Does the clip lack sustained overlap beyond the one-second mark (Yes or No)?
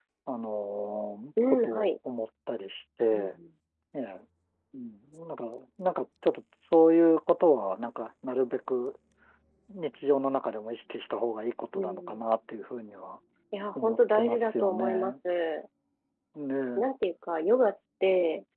No